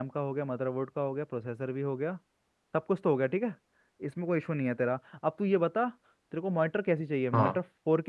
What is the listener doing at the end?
listening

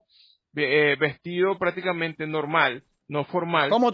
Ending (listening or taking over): taking over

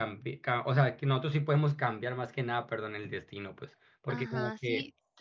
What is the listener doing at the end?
taking over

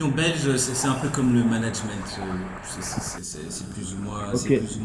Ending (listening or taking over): taking over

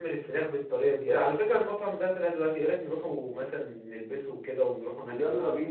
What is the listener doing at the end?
taking over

